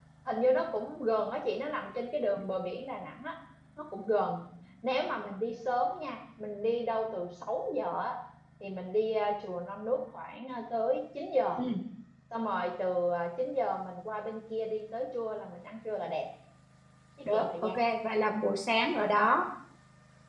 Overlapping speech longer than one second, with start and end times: none

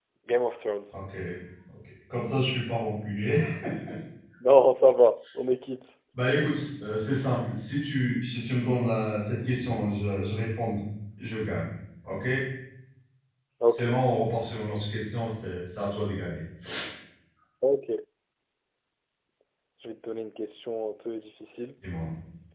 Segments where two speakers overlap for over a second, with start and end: none

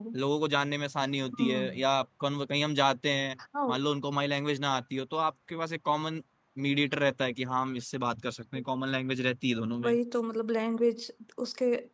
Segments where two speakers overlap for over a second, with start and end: none

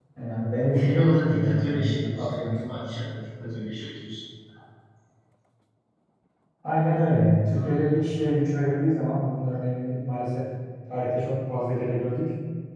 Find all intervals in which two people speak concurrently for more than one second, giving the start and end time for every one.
0.7-2.5

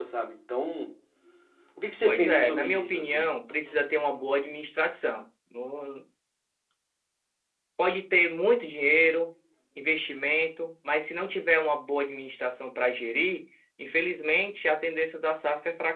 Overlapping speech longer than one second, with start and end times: 2.0-3.3

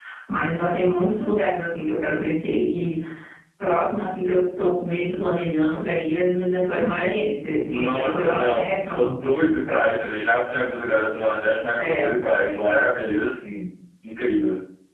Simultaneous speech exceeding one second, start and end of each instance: 7.7-9.2

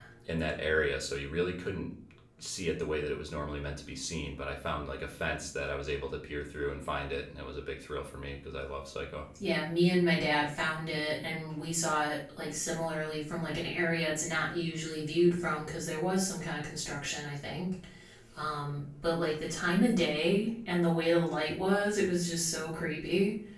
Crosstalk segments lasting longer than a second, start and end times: none

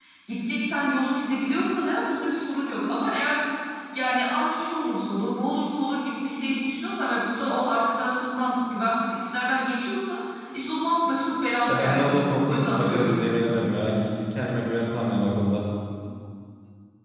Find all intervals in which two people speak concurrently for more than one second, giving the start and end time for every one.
11.7-13.3

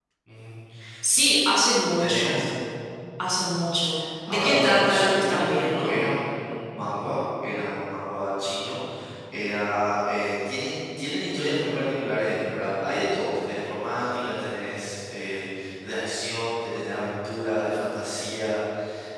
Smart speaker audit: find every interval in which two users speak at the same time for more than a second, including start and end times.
4.3-6.0

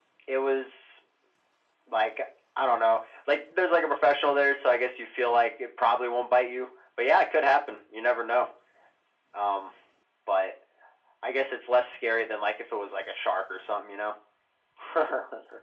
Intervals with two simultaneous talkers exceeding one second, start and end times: none

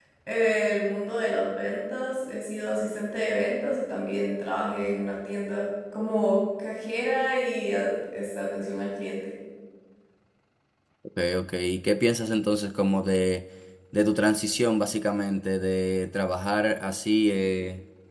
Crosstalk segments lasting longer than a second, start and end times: none

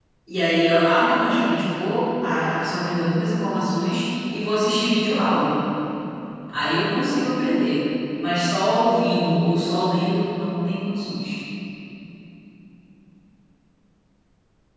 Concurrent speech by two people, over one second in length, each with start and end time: none

